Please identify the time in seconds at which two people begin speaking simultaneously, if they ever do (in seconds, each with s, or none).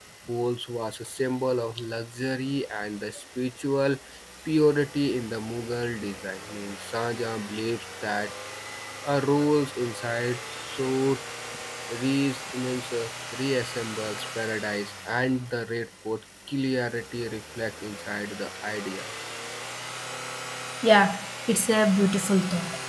none